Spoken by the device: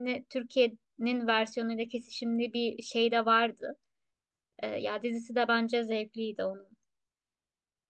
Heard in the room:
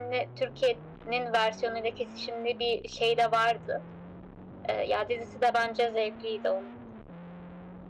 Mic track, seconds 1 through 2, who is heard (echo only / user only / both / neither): echo only